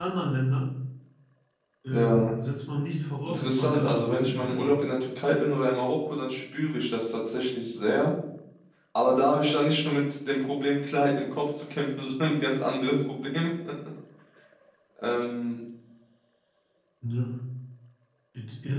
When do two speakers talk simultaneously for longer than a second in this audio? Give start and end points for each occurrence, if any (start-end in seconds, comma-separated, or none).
3.2-4.7